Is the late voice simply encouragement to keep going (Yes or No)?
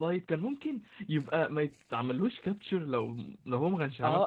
No